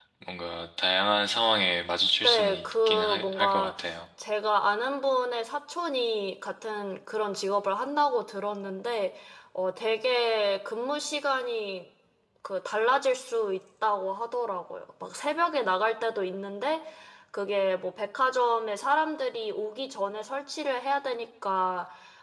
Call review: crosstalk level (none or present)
present